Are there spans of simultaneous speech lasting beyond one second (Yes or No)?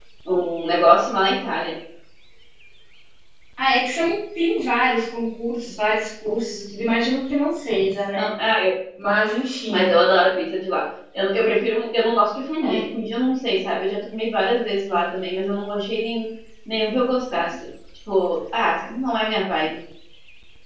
No